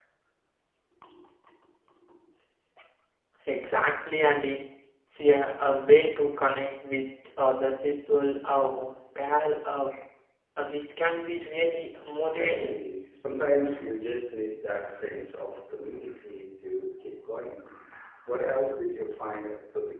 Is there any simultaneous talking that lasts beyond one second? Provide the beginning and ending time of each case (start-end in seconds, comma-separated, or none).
none